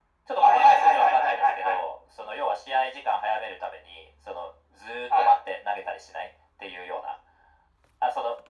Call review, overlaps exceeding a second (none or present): present